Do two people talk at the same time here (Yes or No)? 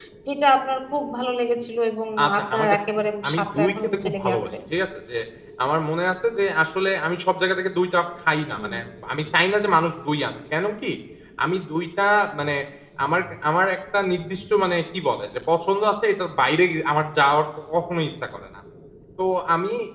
Yes